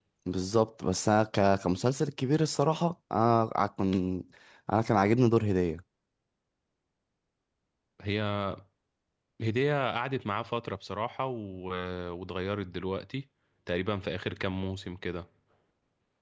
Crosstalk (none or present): none